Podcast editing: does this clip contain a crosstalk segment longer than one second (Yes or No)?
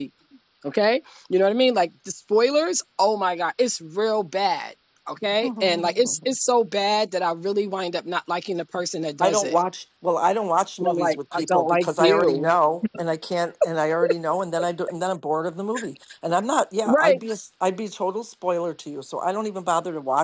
Yes